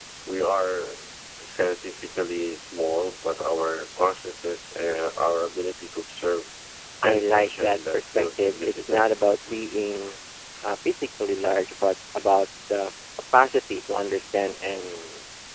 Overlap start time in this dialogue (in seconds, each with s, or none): 7.0 s